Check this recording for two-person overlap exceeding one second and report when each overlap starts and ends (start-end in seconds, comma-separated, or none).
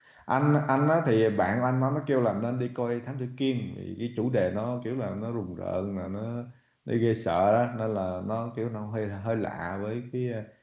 none